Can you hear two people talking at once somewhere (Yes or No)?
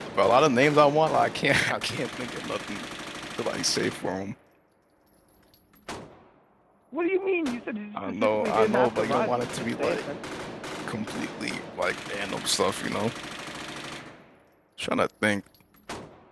Yes